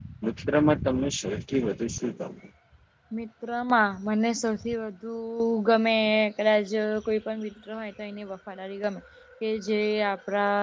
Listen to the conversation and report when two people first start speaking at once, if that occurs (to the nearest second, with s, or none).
none